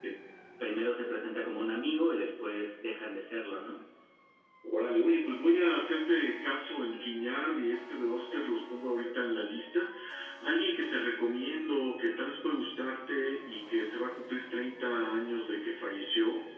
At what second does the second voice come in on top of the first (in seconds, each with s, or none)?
none